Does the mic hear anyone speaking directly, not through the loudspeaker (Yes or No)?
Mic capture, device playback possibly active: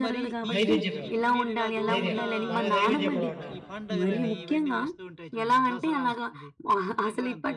Yes